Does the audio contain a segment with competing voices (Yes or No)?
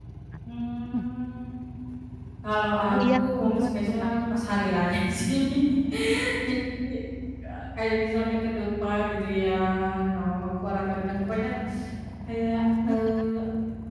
Yes